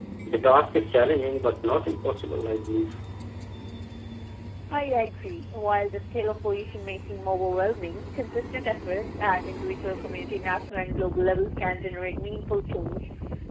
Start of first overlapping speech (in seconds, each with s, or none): none